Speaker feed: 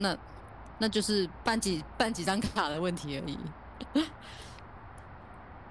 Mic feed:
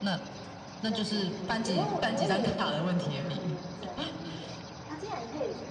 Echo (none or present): present